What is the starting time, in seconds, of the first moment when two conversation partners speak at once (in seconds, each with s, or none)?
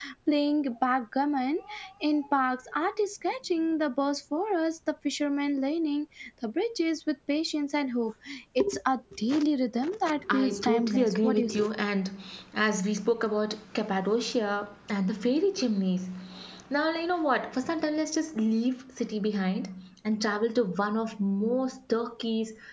10.3 s